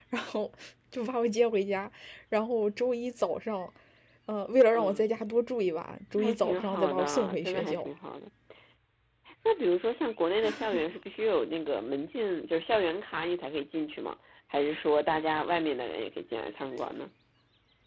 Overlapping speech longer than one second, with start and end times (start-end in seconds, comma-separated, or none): 6.2-7.9